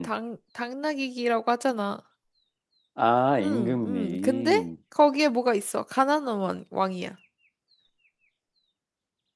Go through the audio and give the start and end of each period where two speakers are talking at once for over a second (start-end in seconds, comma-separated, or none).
3.4-4.7